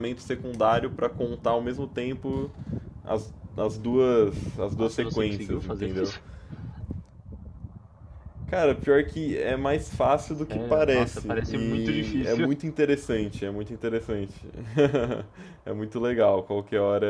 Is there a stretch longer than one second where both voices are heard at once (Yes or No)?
Yes